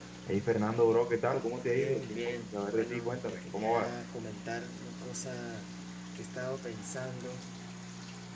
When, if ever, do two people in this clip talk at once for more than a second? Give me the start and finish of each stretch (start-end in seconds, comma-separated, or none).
1.7-3.9